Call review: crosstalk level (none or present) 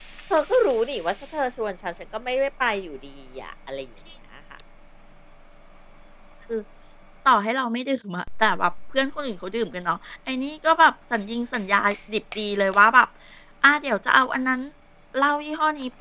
none